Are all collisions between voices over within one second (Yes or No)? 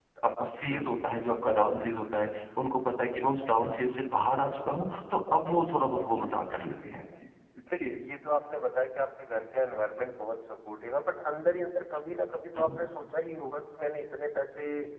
Yes